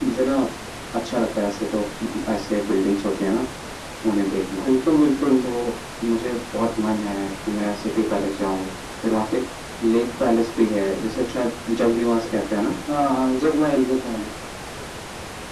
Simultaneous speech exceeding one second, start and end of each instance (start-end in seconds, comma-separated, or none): none